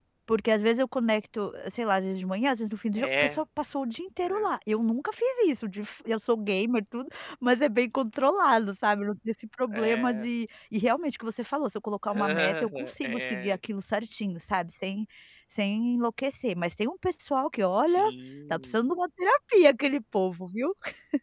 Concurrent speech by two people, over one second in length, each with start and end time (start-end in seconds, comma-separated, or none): 12.2-13.6